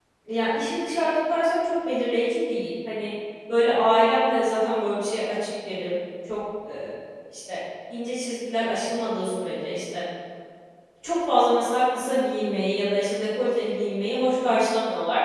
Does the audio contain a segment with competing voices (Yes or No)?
No